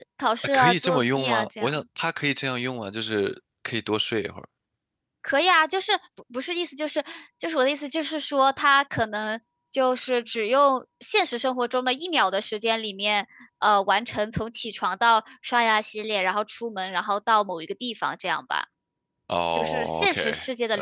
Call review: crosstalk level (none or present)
present